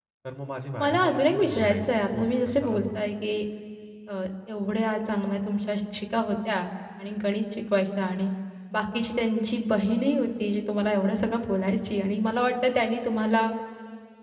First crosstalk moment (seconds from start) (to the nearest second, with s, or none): 1 s